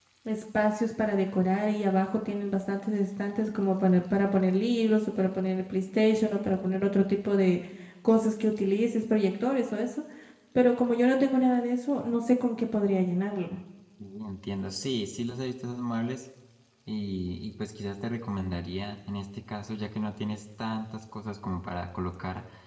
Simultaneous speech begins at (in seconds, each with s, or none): none